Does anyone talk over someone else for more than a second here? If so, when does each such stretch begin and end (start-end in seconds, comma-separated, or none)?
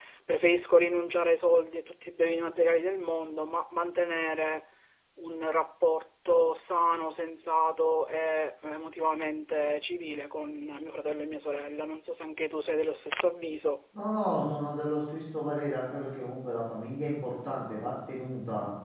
none